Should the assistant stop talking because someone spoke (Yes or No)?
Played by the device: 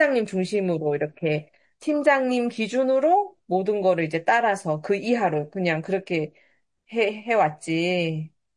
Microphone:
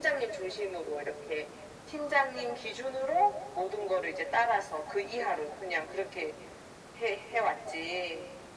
No